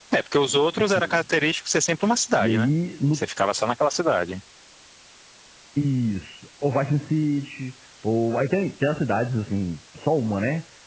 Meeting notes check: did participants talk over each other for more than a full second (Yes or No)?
No